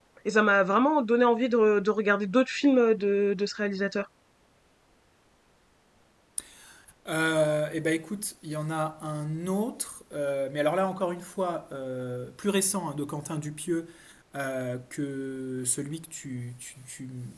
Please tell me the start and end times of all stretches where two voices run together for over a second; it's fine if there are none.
none

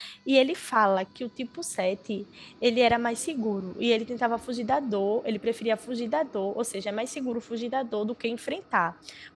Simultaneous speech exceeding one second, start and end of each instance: none

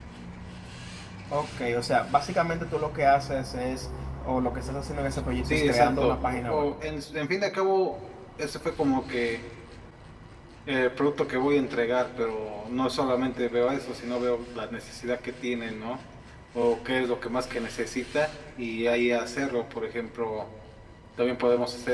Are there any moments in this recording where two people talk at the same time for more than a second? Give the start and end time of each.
5.4-6.7

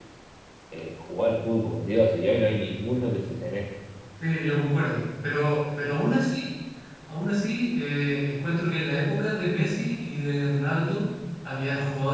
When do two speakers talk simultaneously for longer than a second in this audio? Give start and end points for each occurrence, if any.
none

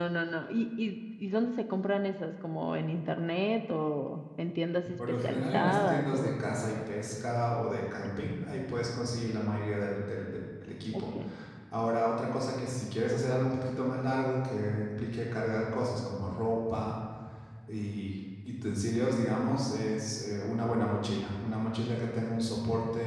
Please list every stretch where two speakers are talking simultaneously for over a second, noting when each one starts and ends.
5.2-6.4

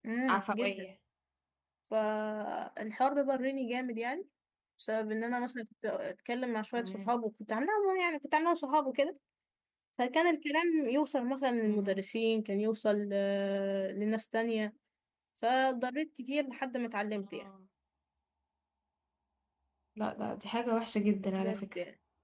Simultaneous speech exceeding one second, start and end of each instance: none

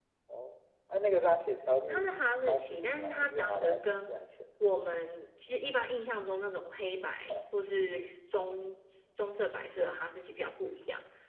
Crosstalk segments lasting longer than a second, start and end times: 2.5-4.1

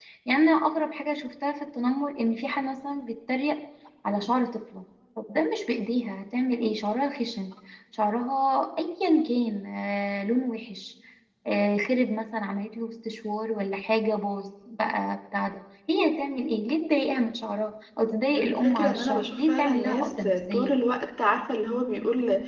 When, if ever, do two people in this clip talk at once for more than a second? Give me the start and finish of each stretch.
18.4-20.7

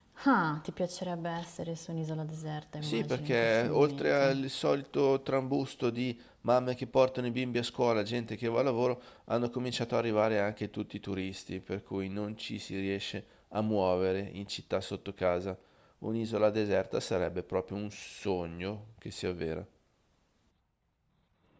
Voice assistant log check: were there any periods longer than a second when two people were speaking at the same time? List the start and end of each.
2.8-4.3

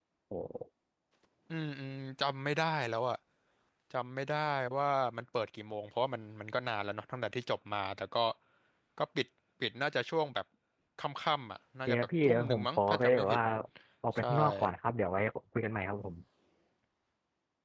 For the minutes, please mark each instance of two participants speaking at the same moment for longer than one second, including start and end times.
11.9-13.4

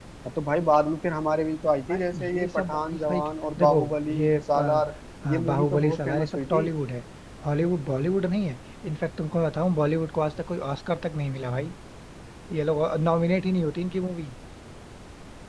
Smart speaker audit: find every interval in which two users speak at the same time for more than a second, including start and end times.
1.9-3.2, 3.6-4.8, 5.2-6.7

